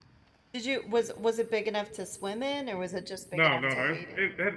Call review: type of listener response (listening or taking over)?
taking over